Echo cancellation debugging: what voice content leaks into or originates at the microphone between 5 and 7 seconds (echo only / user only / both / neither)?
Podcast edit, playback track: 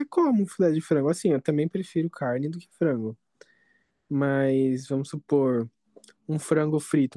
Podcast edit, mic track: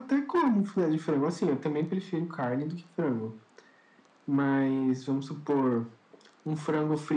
echo only